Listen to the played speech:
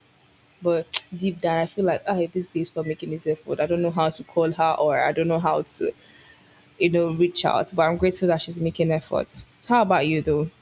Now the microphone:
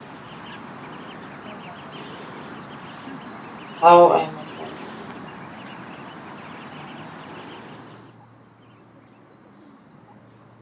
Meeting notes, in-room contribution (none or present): present